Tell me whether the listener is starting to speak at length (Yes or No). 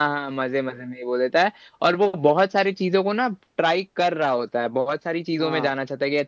No